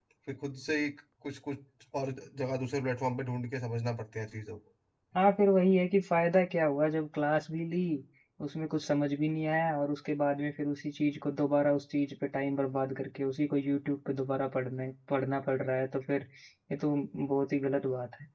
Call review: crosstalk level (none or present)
none